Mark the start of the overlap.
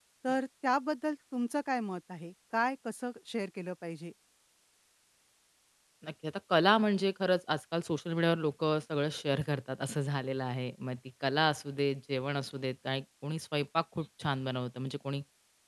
none

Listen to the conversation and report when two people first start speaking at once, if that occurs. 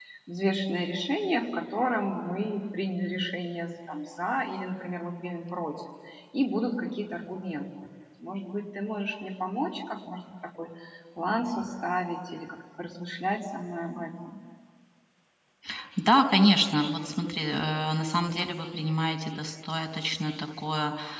none

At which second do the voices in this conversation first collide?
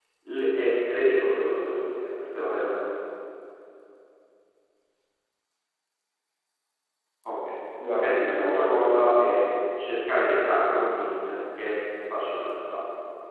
8.0 s

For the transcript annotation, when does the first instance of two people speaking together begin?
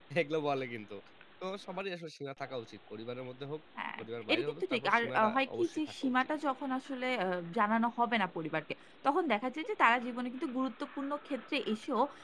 4.0 s

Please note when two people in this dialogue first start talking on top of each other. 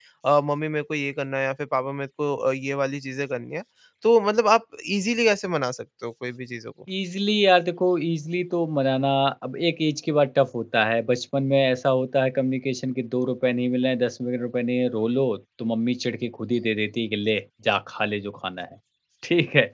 none

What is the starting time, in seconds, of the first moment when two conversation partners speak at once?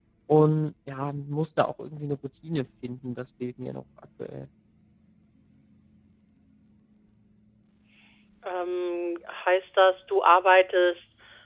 none

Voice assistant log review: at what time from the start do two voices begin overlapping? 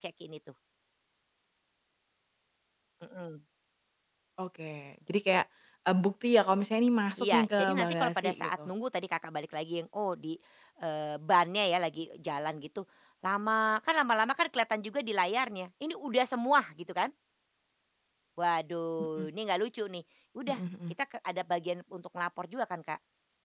7.2 s

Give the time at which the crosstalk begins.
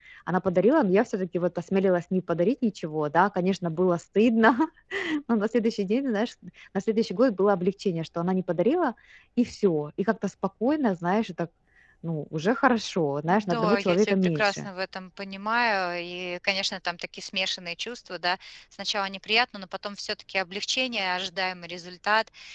13.3 s

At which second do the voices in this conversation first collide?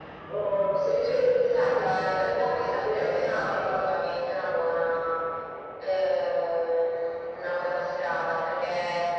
1.5 s

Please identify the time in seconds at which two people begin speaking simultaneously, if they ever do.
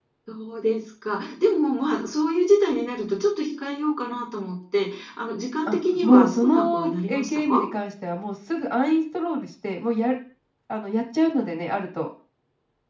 5.7 s

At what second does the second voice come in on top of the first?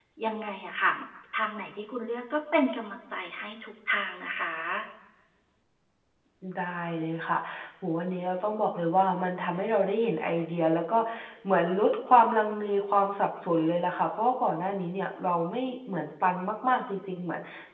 none

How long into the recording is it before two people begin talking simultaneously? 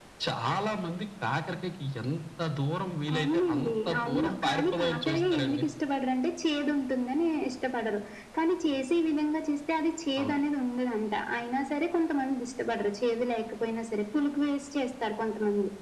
3.2 s

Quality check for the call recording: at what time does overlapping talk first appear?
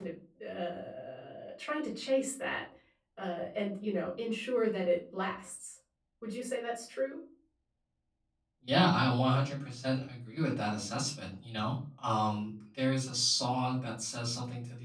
none

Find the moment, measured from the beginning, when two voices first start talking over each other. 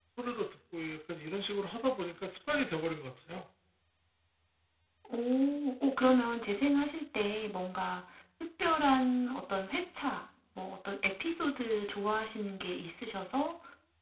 none

